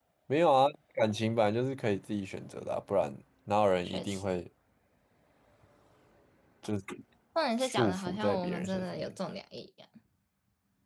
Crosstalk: present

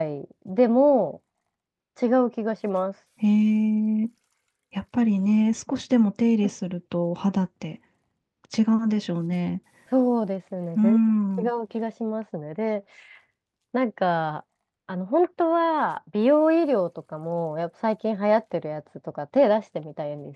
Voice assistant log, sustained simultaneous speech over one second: none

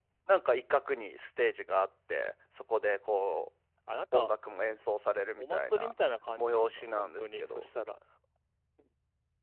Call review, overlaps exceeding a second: present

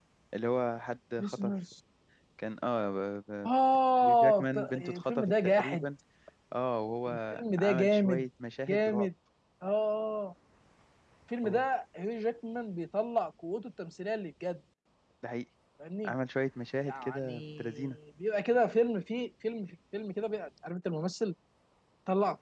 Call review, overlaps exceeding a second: present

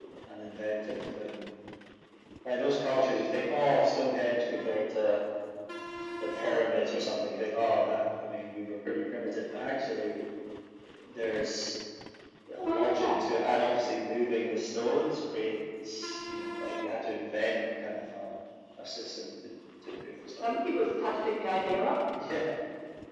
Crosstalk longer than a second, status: none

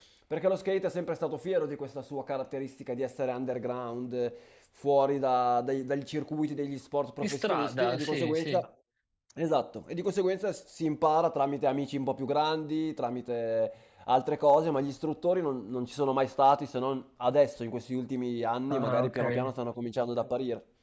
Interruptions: present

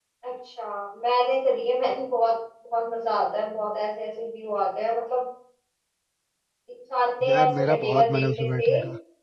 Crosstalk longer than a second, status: present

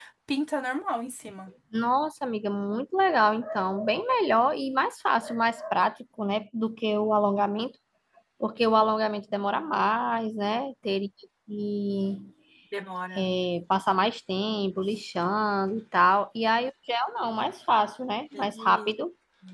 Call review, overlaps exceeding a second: none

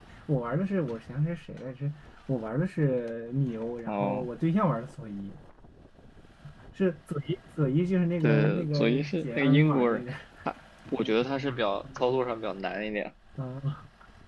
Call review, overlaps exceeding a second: present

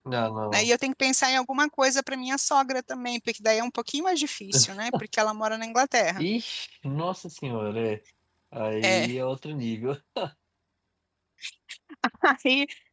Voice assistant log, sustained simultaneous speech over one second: none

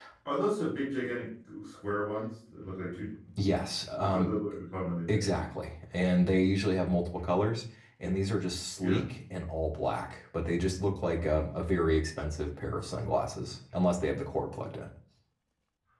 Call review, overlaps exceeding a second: none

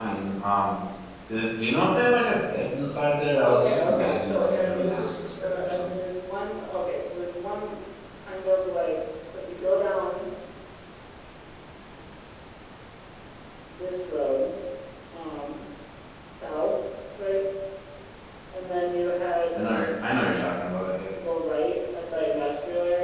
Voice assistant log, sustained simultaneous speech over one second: present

